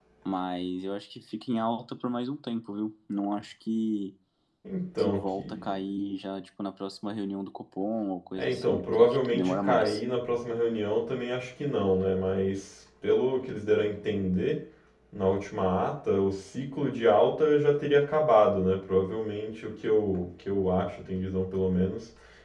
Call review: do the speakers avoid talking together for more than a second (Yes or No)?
No